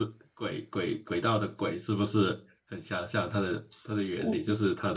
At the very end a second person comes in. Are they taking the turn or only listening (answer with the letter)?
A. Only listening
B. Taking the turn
B